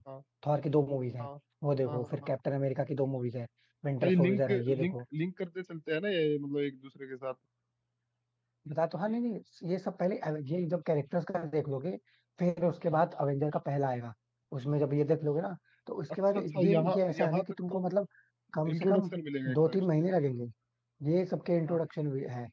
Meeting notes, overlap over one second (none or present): present